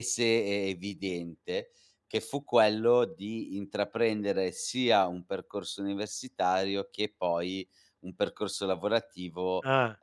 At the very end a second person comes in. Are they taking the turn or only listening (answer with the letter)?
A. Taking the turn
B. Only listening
B